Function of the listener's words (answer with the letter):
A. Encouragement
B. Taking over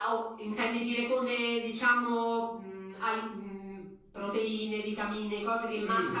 B